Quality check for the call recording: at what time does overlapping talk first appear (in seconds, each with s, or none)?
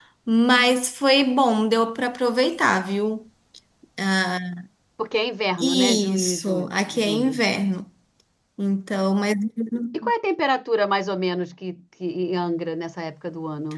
5.6 s